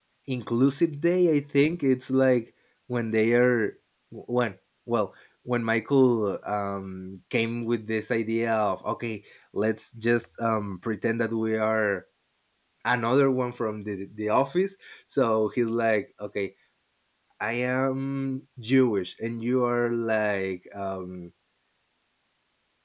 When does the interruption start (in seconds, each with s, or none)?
none